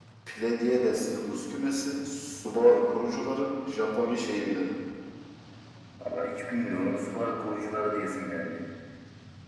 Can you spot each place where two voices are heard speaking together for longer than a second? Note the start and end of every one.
none

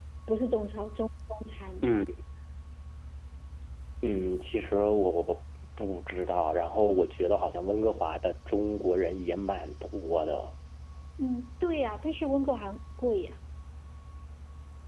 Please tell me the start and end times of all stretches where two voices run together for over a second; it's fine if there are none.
none

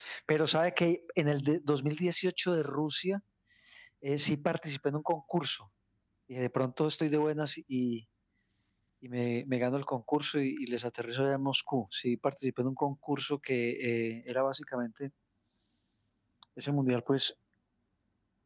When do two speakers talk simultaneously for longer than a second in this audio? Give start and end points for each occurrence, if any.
none

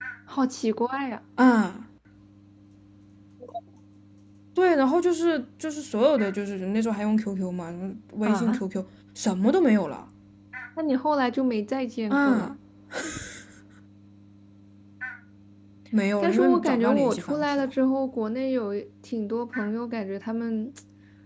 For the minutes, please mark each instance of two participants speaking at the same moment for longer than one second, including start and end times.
16.2-17.7

